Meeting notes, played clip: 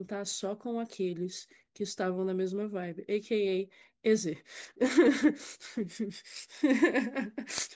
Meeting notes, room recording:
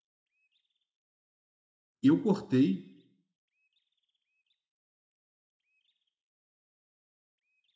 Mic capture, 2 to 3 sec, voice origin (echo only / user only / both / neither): user only